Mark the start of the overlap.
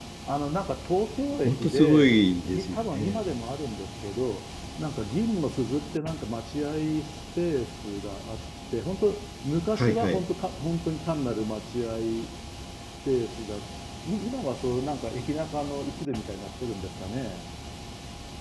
1 s

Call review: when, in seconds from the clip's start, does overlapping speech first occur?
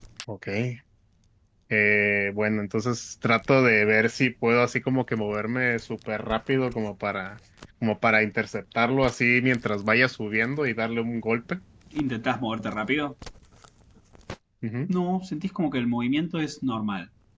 none

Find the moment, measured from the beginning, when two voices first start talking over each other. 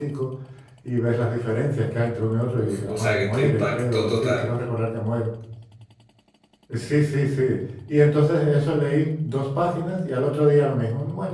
3 s

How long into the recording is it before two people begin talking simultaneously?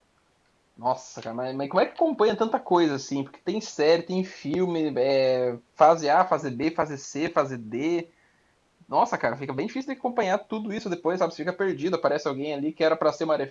none

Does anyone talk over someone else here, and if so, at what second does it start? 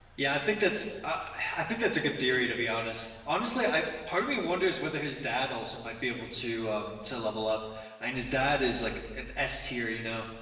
none

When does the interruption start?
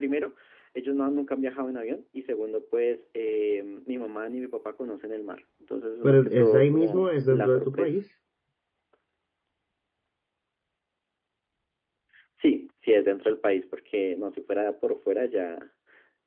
6 s

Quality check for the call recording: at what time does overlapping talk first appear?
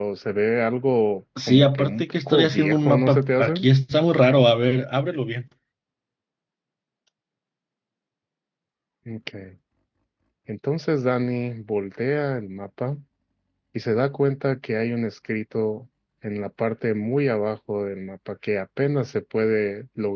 1 s

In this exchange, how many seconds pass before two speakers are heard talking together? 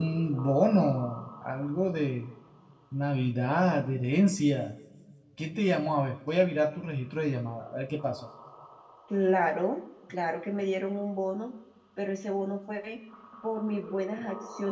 none

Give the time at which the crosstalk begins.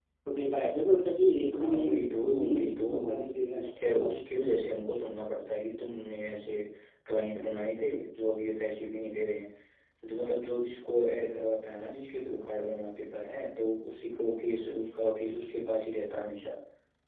2 s

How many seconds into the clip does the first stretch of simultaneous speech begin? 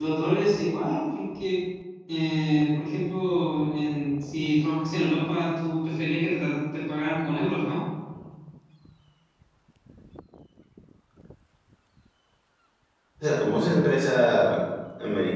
none

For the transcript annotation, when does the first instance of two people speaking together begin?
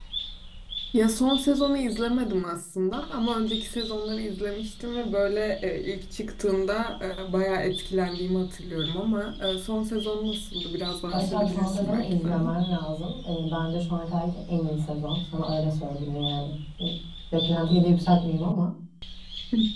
11 s

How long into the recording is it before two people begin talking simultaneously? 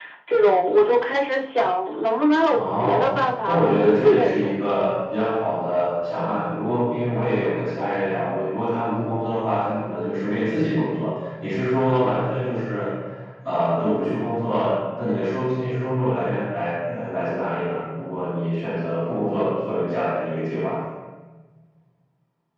3 s

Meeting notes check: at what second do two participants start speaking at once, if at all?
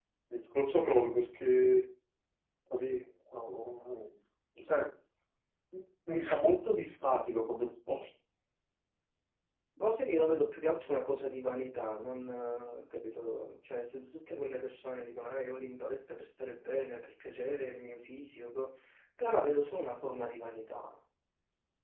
none

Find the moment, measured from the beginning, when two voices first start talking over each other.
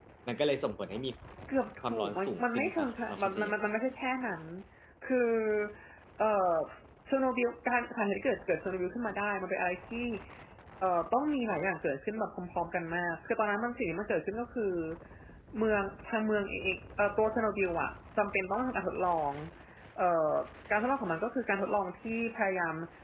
2 s

